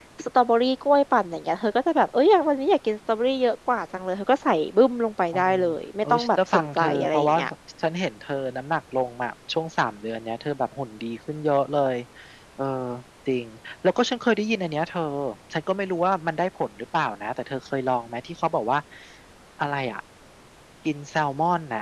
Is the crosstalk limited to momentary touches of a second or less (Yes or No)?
No